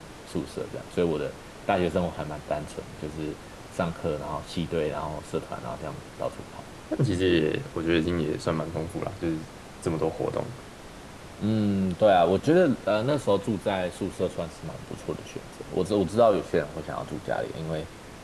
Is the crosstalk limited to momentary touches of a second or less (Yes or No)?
Yes